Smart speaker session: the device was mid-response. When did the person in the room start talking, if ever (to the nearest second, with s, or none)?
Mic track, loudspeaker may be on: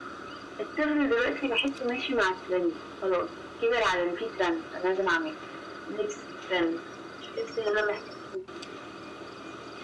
none